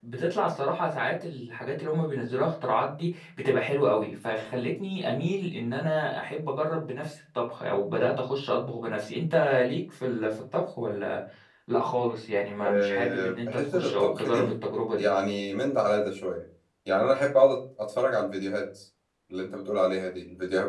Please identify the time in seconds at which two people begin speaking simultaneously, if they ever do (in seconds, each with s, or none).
12.6 s